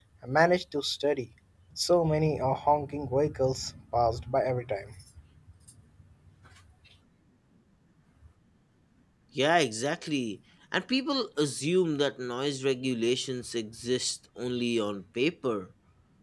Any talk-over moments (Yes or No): No